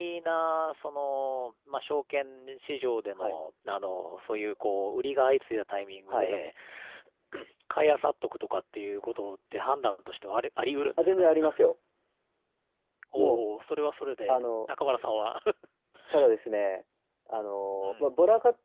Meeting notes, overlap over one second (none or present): none